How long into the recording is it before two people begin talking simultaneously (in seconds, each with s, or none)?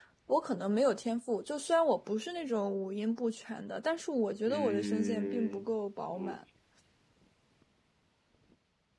4.5 s